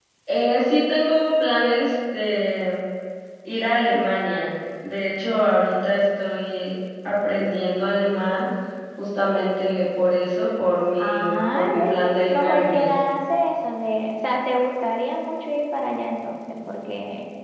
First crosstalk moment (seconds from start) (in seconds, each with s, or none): 11.0 s